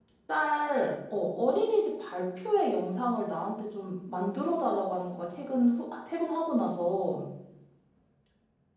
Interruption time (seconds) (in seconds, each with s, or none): none